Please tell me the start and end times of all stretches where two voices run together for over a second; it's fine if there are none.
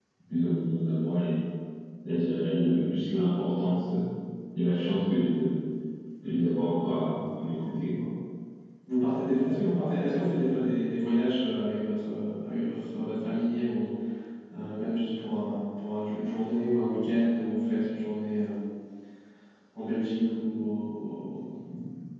none

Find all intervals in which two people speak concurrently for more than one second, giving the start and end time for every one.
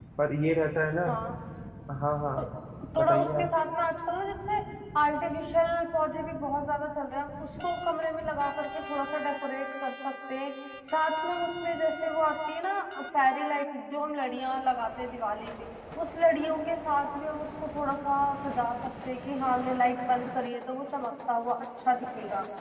none

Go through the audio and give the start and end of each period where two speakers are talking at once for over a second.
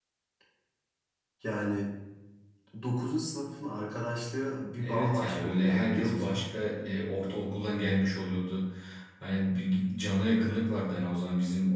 4.8-6.4

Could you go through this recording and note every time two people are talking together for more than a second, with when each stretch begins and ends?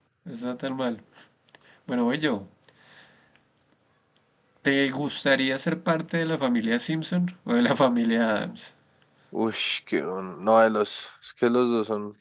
none

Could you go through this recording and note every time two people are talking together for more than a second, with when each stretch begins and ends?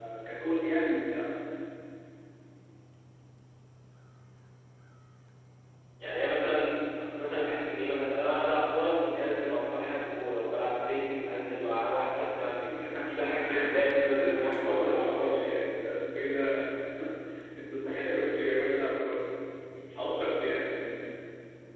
14.0-15.5

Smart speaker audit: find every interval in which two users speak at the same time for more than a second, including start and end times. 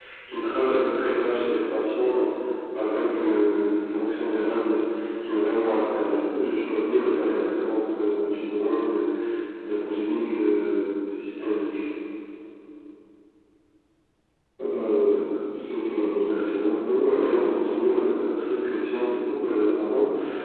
16.2-17.8

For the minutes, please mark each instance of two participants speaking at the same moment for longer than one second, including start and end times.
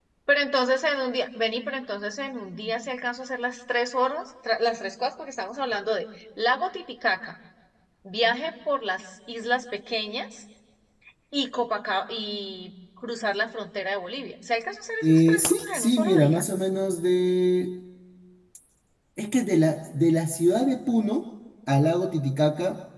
15.0-16.4

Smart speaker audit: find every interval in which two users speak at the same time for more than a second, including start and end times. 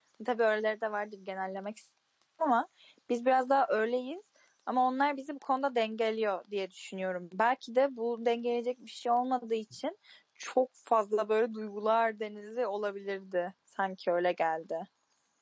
none

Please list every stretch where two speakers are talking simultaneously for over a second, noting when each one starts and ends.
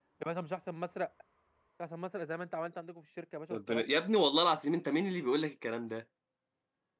none

